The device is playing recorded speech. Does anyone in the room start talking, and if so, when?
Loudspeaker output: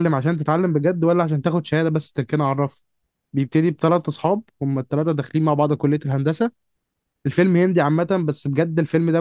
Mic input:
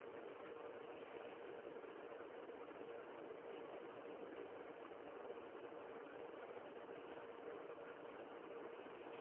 none

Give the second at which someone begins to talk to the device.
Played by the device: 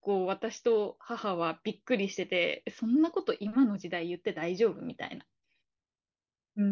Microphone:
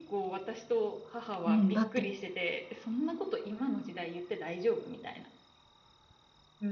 1.5 s

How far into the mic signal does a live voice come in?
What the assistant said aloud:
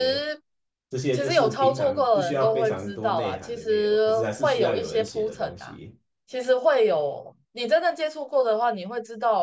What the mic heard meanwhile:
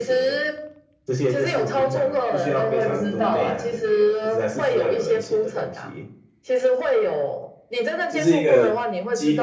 8.1 s

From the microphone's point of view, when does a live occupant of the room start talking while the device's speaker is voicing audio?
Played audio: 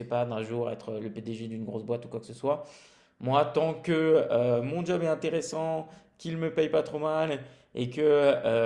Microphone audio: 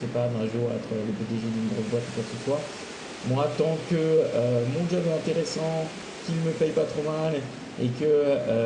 none

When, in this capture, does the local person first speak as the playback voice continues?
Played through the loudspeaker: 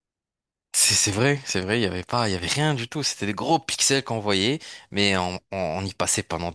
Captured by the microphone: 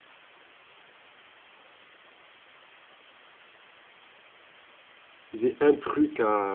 5.3 s

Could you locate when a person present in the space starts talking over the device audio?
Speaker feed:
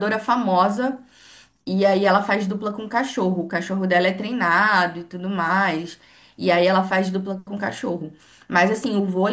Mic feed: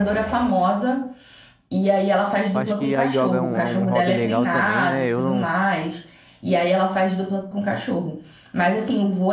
2.5 s

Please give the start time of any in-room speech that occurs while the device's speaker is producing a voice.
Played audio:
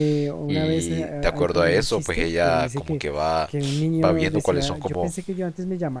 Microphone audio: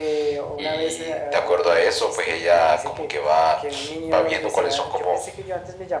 none

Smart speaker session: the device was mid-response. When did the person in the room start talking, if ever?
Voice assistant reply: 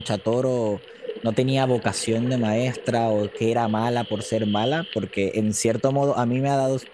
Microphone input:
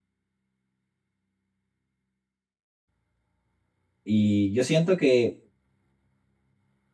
4.0 s

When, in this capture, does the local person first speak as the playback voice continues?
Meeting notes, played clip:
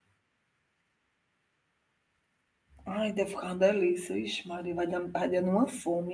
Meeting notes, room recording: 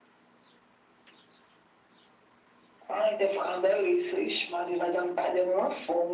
none

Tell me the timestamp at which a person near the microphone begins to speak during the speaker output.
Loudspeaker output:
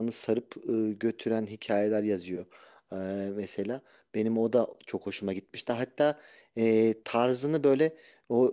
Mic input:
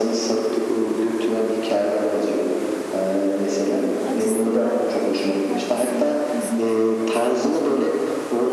3.7 s

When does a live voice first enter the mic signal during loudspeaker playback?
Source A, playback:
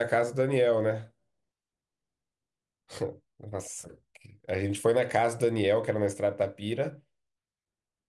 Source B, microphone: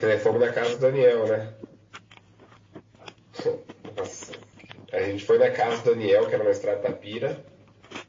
none

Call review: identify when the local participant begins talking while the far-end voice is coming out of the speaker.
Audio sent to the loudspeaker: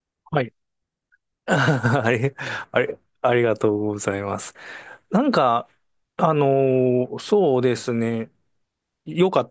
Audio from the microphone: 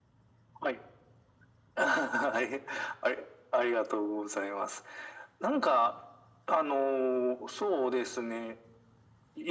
none

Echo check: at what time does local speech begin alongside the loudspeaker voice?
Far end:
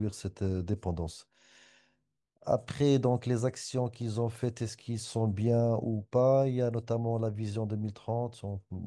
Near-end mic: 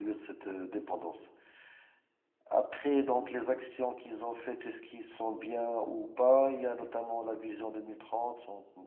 none

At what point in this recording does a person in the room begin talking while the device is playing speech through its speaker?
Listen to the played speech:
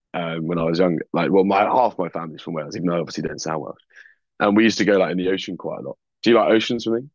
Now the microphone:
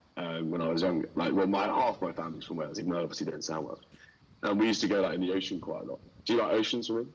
none

